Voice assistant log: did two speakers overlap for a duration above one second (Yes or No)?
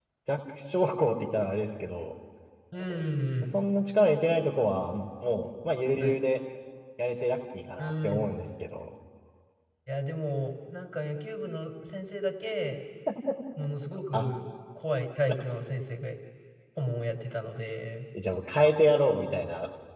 No